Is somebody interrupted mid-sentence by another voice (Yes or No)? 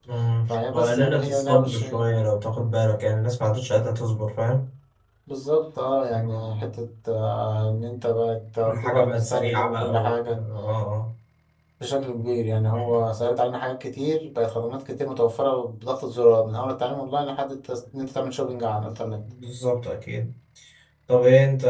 Yes